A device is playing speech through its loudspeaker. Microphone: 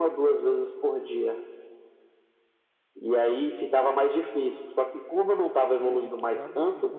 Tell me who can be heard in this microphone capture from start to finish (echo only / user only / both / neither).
both